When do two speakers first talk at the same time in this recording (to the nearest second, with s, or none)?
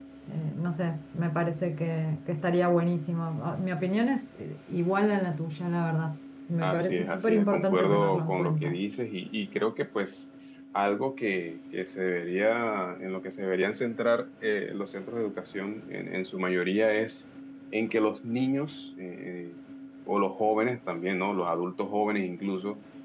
7 s